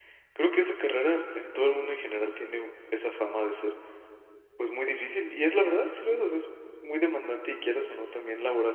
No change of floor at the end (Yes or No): Yes